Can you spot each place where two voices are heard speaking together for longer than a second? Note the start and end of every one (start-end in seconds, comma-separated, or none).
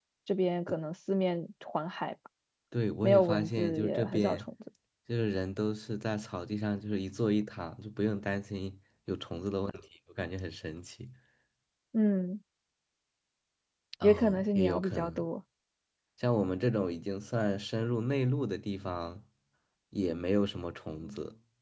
3.0-4.5, 14.0-15.2